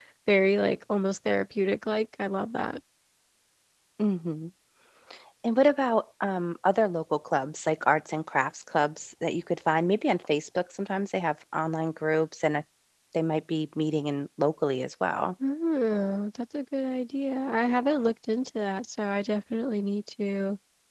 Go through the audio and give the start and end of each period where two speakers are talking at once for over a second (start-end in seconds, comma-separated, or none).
none